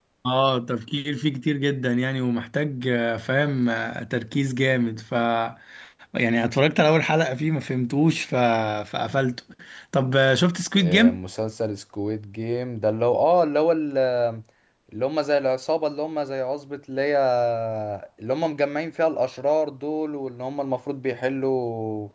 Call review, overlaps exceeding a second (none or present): none